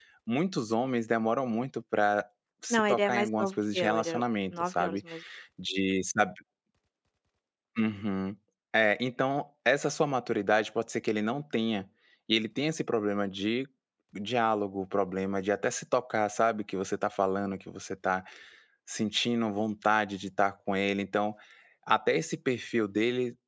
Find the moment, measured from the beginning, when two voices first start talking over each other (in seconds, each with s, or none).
2.7 s